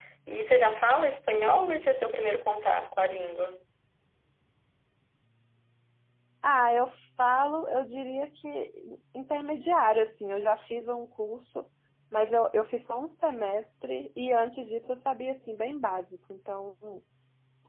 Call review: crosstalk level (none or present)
none